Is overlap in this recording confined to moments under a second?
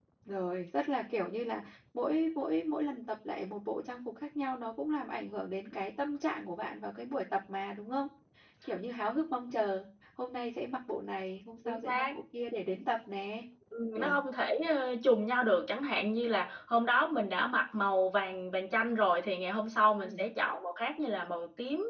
Yes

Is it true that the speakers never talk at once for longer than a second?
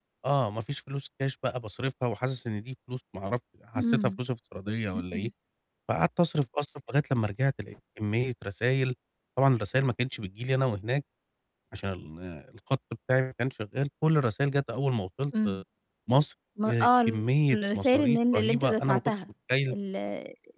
No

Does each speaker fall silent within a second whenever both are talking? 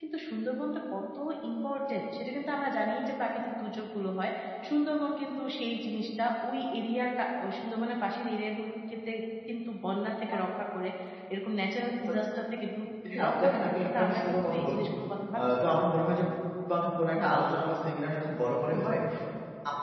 No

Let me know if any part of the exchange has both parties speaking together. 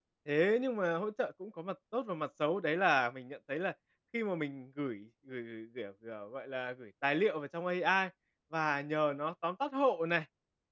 No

